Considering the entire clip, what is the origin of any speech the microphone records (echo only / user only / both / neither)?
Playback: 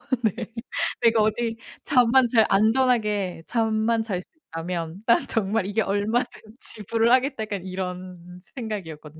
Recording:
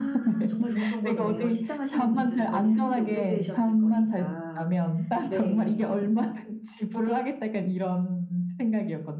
both